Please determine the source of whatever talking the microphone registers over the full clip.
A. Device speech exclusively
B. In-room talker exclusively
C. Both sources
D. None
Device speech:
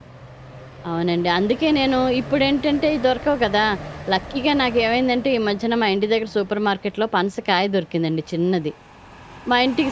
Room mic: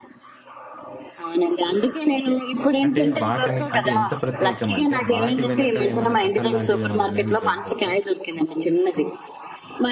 C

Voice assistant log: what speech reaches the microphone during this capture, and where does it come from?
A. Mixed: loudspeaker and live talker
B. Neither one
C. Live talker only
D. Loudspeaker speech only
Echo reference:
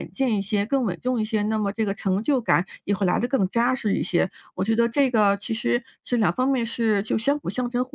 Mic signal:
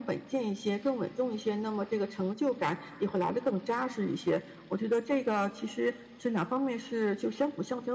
D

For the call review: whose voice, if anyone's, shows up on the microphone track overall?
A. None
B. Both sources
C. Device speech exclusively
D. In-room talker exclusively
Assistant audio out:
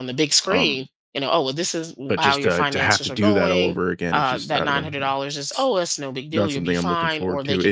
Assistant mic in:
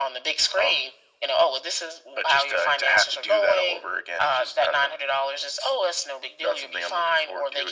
C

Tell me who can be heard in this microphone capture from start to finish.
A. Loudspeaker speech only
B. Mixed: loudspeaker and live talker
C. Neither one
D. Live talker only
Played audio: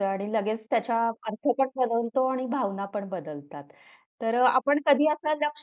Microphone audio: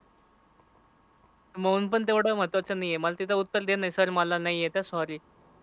D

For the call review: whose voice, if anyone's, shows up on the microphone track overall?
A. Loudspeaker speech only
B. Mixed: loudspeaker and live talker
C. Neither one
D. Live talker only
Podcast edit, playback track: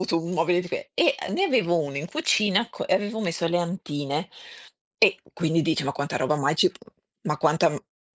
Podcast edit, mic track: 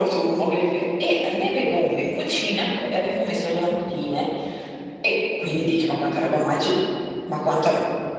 A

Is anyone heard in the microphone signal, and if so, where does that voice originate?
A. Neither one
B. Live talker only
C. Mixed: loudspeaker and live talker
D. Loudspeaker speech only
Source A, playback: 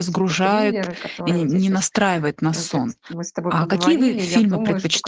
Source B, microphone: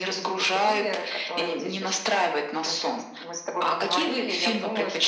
D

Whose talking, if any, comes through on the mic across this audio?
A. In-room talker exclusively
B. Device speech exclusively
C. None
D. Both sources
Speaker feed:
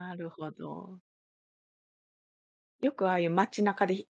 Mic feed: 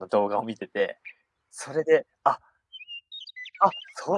A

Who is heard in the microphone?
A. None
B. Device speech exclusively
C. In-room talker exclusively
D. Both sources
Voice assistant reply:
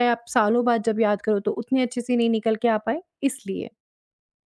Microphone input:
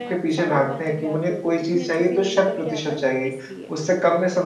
D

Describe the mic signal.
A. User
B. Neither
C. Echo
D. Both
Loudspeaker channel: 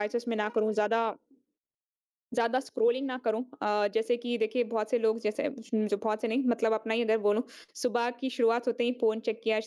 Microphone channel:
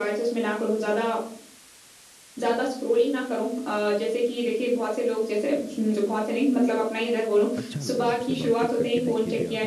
D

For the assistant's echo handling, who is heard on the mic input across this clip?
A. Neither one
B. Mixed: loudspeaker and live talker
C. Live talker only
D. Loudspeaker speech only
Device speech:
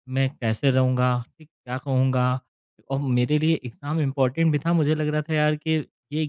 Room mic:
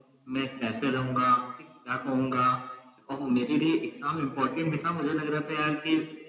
D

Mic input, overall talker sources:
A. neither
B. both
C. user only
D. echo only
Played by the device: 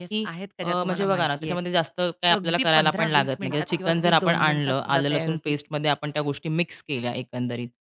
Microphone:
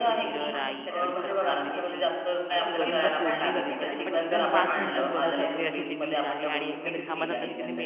B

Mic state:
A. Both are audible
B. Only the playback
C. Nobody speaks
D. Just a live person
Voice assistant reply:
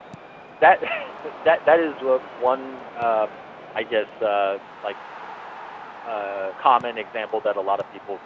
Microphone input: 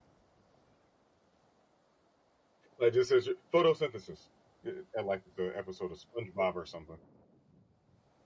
D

